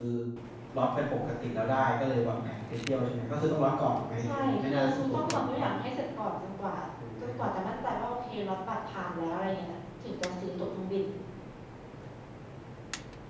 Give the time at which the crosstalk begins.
4.2 s

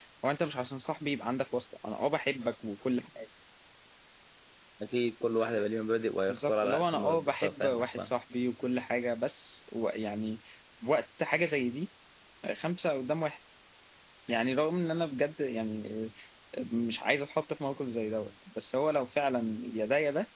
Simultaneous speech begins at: 6.3 s

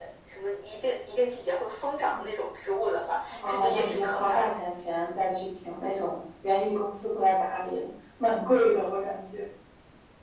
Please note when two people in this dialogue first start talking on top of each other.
3.3 s

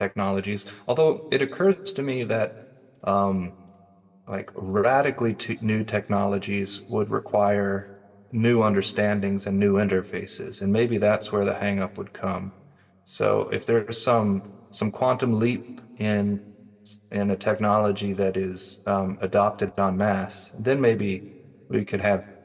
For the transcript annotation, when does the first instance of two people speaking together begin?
none

